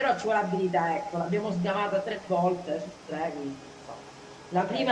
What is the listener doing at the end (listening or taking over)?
listening